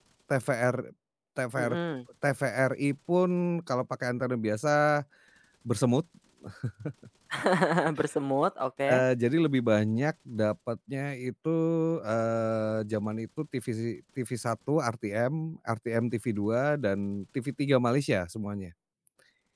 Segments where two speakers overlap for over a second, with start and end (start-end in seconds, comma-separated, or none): none